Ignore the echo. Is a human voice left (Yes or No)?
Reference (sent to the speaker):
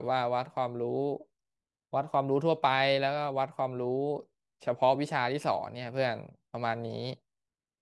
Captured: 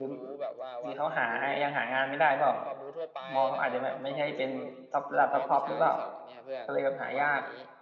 Yes